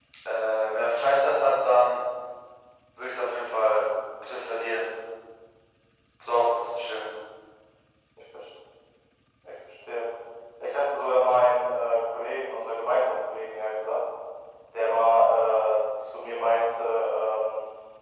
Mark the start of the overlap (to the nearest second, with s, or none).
none